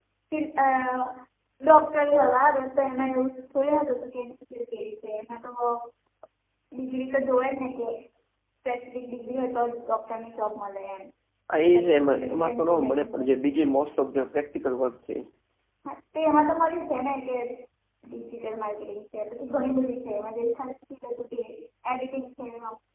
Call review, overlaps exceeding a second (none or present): present